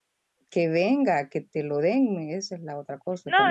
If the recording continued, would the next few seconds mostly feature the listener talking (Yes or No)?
Yes